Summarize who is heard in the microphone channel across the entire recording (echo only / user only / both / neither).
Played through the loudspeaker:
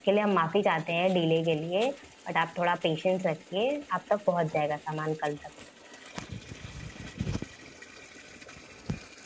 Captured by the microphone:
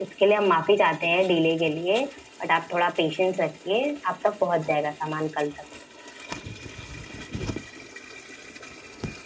echo only